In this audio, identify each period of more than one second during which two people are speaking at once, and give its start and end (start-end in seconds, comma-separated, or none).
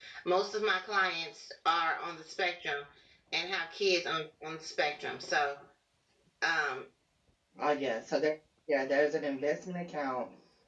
none